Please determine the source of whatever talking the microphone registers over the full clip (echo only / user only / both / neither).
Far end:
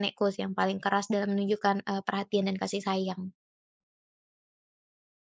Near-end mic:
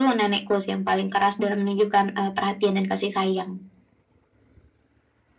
echo only